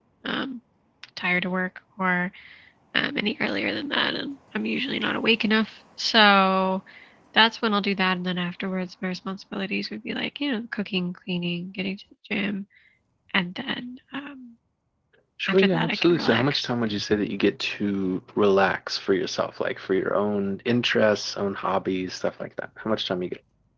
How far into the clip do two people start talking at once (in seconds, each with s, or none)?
15.5 s